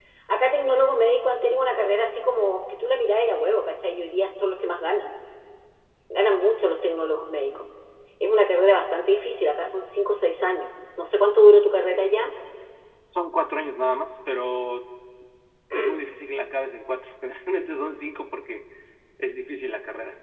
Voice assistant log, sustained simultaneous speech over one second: none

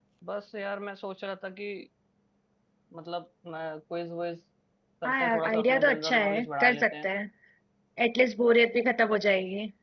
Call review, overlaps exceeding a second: present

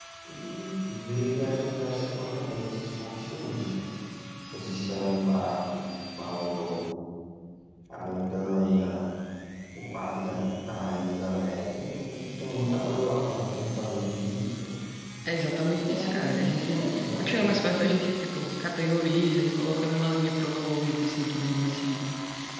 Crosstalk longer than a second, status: present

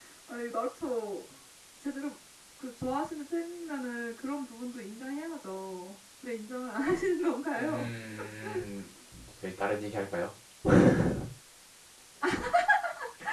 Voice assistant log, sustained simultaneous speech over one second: none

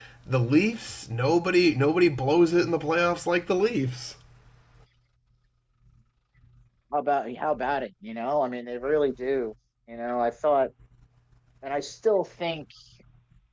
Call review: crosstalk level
none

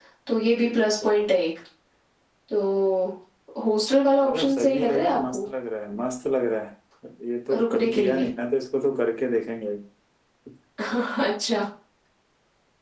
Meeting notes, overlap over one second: present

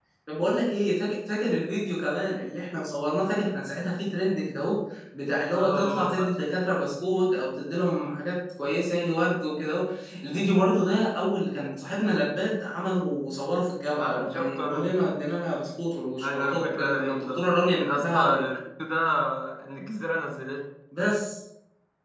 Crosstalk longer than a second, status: present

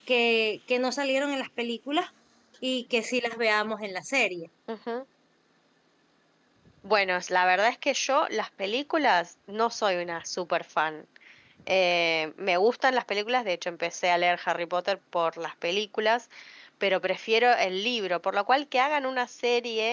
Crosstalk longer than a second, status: none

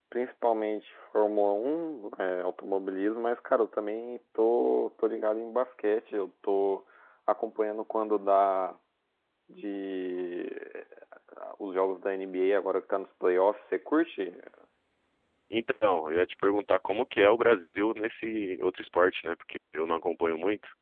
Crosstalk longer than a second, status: none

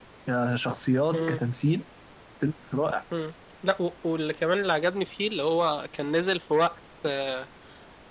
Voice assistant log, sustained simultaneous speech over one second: none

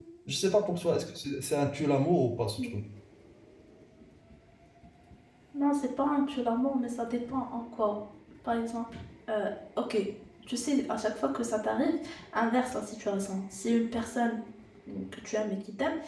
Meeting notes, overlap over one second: none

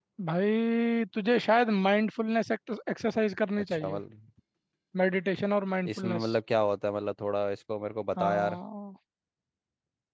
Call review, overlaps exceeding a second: none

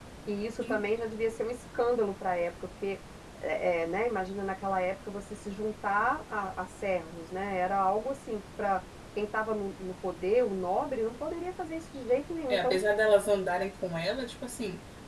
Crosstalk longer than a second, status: none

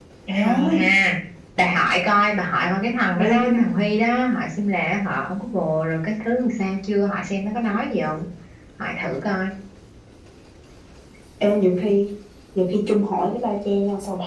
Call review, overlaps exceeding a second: none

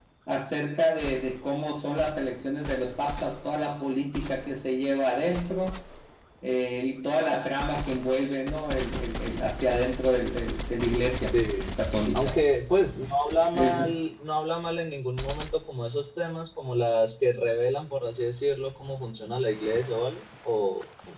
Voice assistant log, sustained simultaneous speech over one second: none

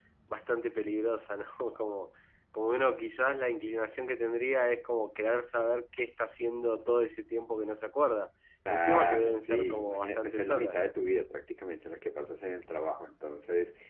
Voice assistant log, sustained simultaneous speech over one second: present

